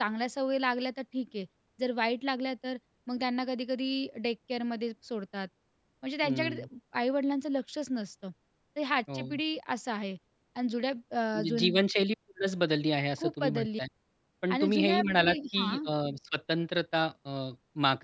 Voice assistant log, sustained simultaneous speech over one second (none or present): present